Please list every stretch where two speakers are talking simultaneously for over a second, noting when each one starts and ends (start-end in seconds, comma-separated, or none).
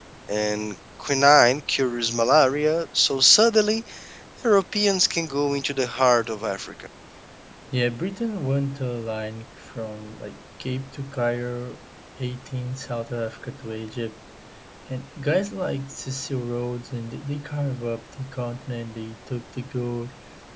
none